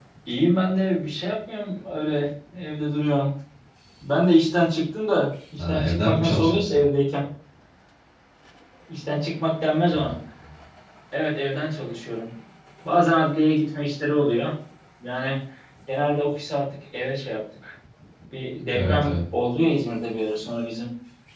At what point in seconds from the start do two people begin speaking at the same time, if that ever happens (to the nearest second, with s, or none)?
6 s